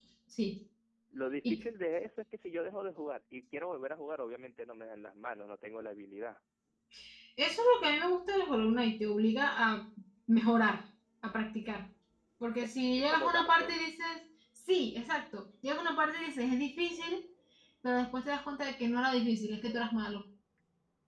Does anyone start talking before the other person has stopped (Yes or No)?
Yes